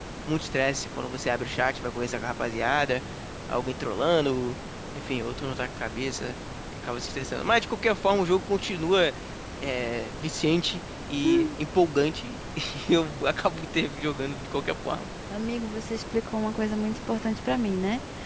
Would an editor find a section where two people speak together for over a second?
No

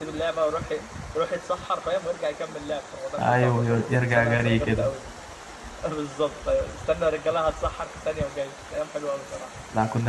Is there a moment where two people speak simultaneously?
Yes, from 3.2 s

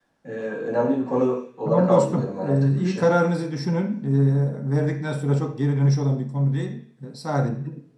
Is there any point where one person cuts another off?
Yes, from 1.6 s

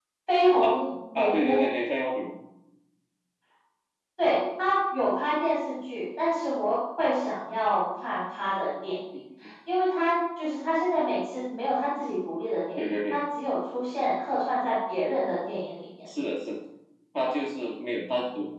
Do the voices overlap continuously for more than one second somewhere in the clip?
No

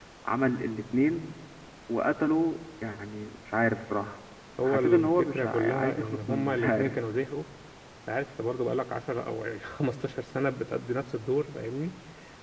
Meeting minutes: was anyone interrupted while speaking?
Yes, from 4.6 s

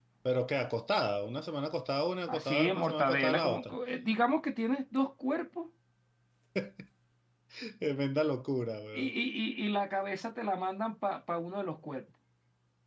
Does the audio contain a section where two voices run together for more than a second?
Yes, from 2.3 s

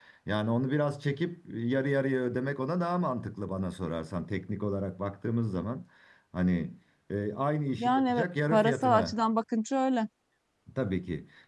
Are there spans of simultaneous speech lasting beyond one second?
Yes, from 7.8 s

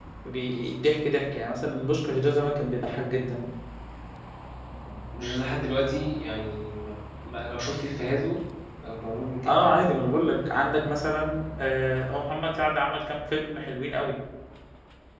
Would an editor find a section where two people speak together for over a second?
No

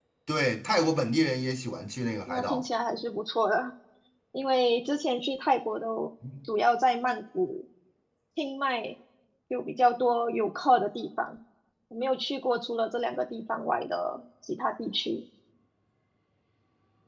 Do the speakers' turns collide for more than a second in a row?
No

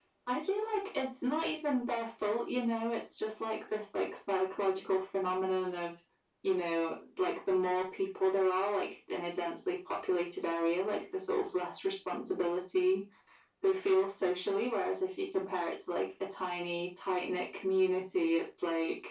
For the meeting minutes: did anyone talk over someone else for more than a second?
No

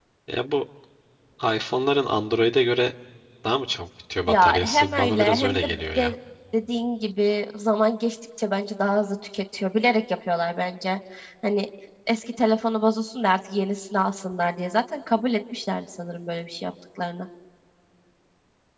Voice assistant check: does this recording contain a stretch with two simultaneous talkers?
Yes, from 4.3 s

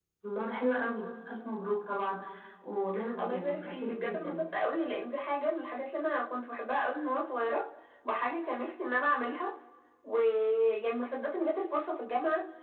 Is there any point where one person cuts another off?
Yes, from 3.2 s

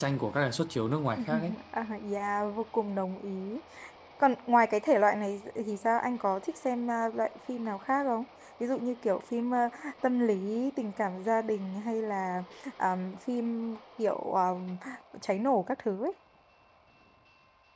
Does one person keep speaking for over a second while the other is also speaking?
No

